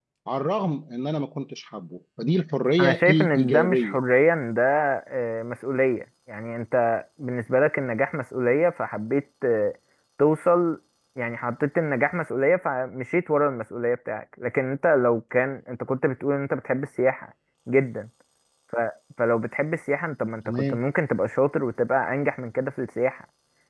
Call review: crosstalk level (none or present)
present